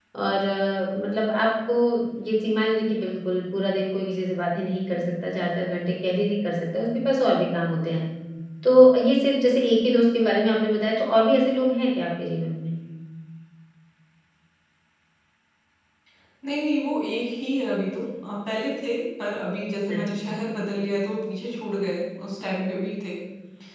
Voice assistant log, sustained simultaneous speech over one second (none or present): none